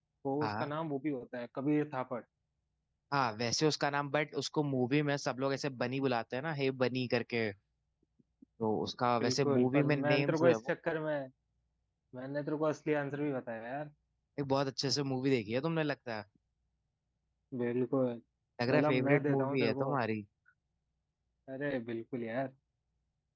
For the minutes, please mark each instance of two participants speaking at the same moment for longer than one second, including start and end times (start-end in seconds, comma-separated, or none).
9.2-10.7, 18.7-19.9